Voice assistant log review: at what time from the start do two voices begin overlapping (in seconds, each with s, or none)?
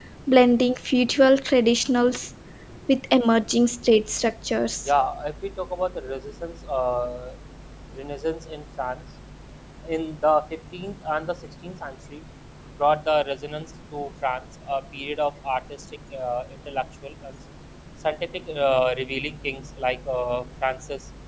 none